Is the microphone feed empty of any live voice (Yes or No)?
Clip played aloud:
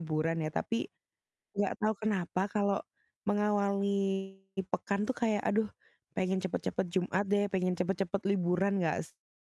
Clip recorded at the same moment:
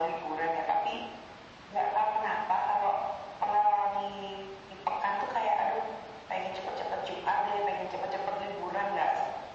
Yes